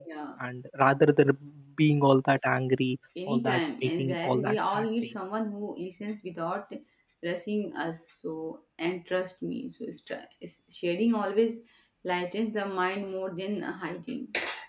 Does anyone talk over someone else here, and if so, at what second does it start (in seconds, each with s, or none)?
3.1 s